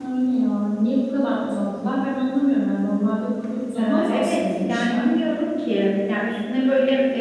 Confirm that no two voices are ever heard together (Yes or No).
No